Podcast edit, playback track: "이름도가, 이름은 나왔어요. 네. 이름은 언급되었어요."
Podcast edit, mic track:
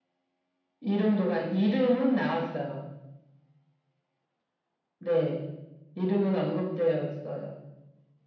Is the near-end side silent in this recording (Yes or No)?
Yes